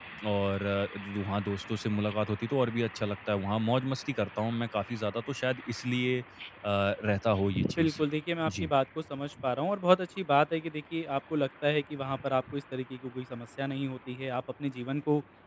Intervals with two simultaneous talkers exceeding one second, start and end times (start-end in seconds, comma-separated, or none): none